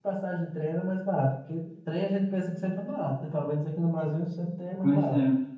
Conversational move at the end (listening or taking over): taking over